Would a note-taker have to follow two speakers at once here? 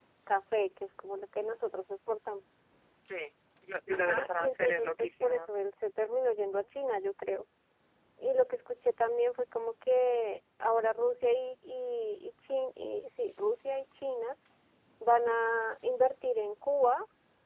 Yes, from 3.9 s

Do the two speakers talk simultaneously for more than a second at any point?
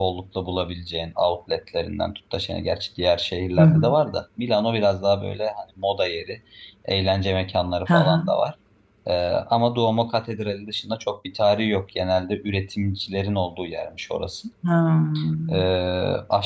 No

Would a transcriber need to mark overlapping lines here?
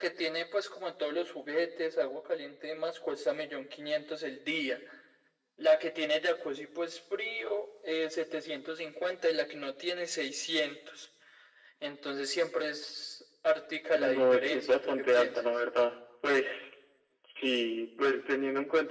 Yes, from 14.0 s

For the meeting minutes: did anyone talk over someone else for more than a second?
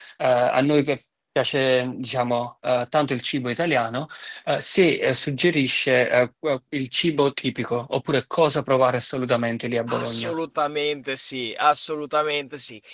No

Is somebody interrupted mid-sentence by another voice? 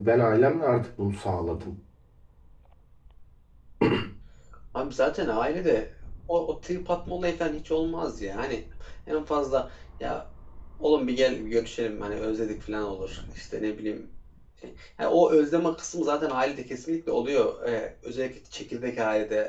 No

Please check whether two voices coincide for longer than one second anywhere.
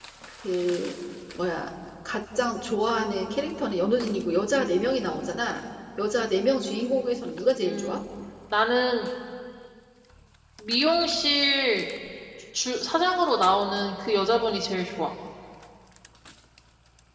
No

